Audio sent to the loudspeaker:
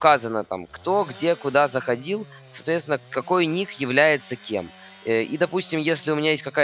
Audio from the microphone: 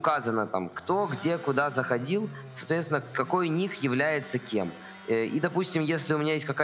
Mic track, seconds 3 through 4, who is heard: echo only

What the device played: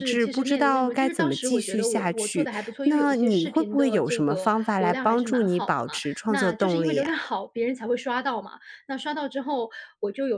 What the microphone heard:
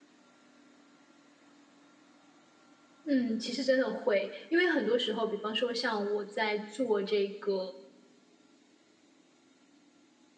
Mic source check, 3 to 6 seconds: user only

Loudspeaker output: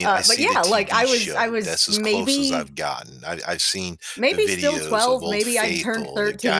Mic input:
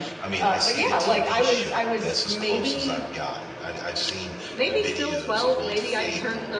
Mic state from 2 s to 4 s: echo only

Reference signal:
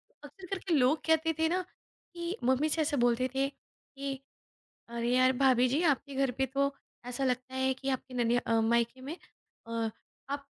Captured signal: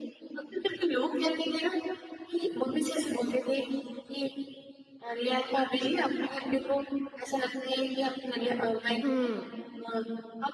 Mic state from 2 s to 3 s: echo only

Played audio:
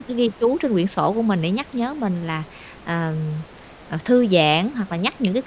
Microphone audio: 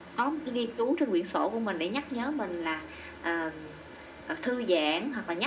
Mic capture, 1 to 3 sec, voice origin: echo only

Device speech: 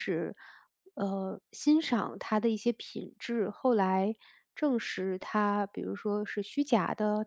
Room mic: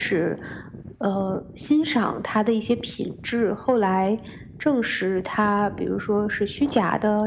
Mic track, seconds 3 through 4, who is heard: echo only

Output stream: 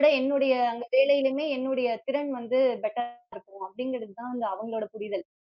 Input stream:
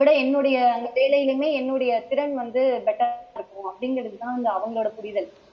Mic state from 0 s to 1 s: echo only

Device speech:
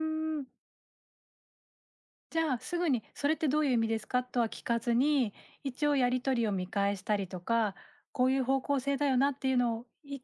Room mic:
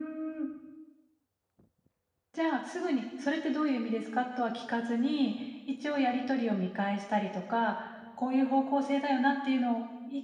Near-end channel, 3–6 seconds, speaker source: echo only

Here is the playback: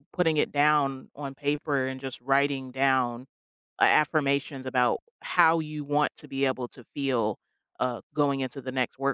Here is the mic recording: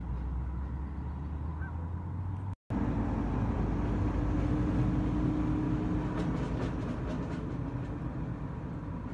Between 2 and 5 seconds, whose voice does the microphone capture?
neither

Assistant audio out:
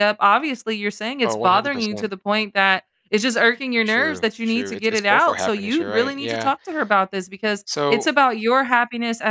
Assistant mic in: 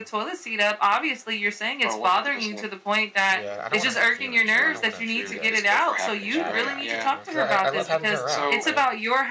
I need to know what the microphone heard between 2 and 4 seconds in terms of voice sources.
both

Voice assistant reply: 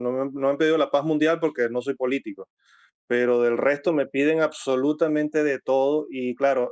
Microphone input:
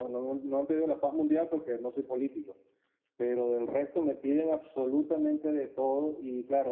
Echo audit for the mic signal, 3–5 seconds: echo only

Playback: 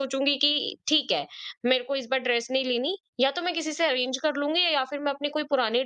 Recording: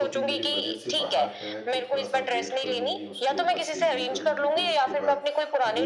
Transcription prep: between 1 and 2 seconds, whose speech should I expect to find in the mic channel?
both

